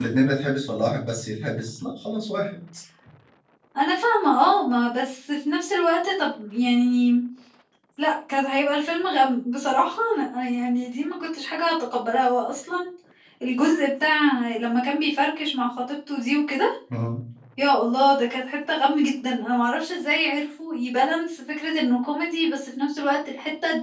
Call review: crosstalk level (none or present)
none